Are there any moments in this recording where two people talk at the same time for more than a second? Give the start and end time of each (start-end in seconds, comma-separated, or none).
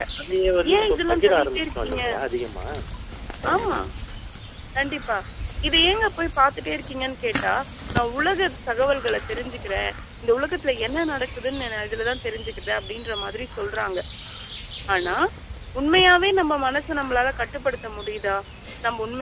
0.7-2.0